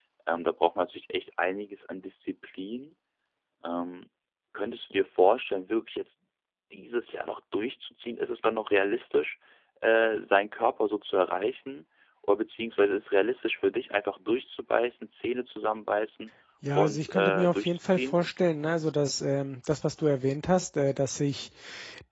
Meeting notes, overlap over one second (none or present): present